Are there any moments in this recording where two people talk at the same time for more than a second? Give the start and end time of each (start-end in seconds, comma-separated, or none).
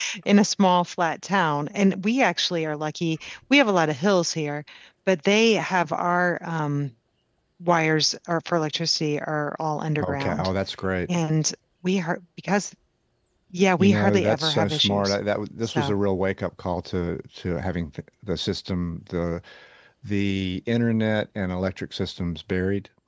13.8-15.2